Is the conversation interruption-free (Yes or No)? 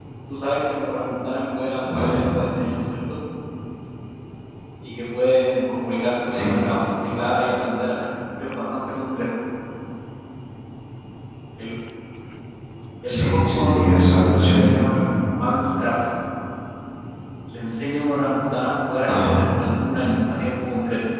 No